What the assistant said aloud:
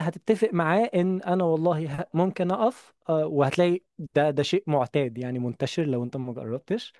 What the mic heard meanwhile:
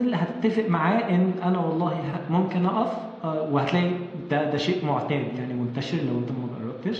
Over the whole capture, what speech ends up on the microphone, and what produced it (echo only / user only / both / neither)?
echo only